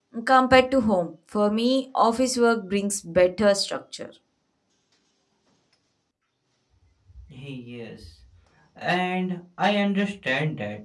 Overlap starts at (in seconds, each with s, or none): none